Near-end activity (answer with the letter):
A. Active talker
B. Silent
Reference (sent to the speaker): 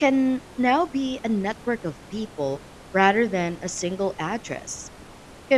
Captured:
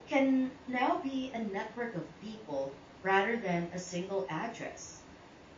B